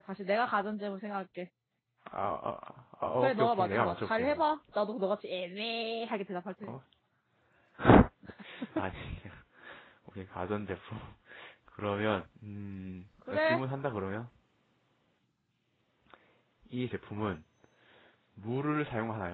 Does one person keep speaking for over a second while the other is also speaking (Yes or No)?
Yes